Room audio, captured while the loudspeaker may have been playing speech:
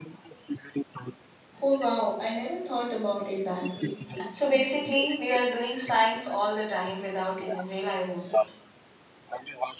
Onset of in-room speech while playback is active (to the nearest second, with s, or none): 2 s